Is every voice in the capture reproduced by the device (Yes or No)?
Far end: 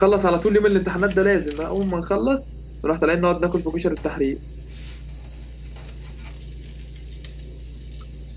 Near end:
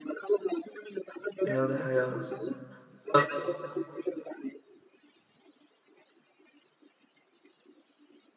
No